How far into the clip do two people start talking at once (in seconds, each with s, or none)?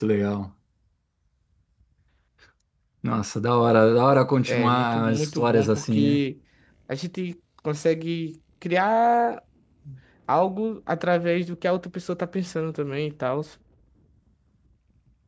4.4 s